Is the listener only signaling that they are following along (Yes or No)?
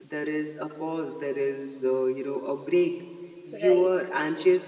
Yes